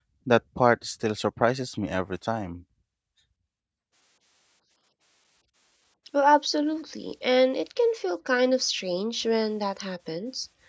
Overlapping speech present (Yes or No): No